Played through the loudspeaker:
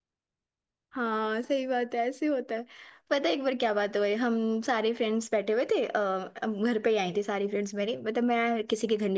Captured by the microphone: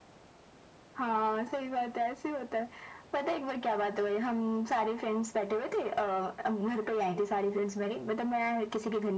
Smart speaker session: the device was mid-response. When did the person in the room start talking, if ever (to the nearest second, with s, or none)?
none